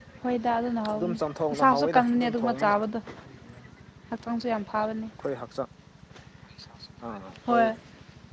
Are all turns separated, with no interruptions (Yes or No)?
No